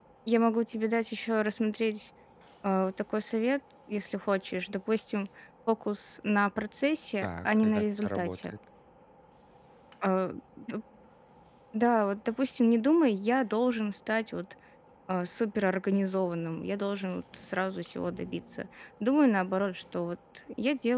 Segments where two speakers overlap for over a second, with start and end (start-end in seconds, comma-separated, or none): 7.2-8.5